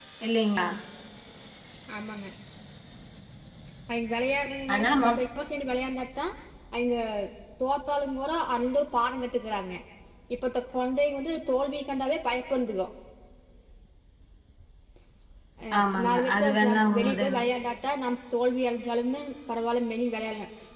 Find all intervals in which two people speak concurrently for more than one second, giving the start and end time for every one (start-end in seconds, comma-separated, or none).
15.8-17.5